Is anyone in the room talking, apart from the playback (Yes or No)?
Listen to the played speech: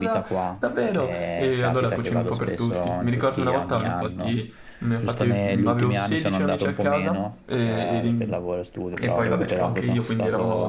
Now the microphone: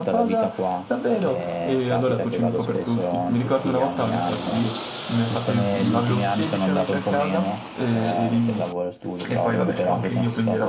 No